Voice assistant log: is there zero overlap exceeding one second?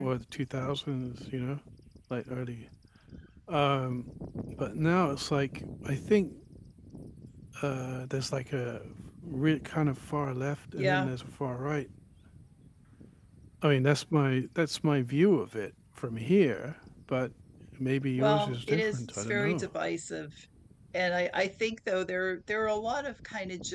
No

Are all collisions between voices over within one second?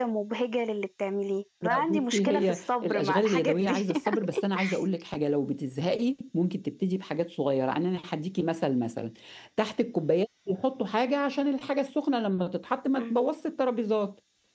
No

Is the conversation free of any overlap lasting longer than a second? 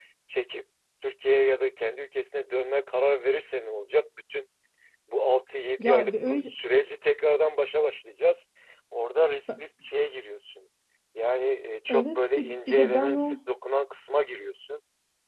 No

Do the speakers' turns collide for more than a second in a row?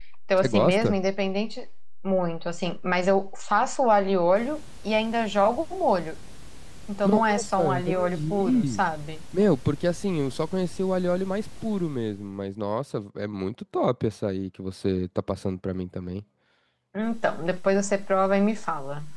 Yes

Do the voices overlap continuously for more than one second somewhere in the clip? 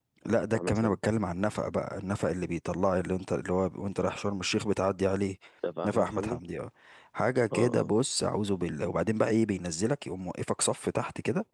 No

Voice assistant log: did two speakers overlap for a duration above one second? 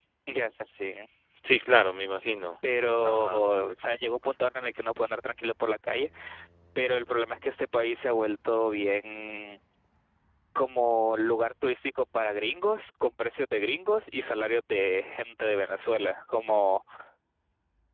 No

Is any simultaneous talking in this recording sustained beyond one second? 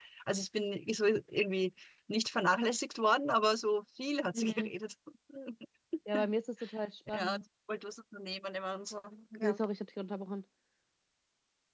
No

